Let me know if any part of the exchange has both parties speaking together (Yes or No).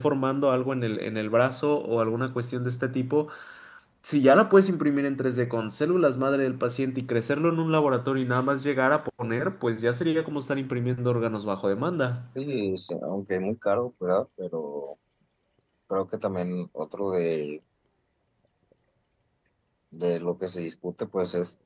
No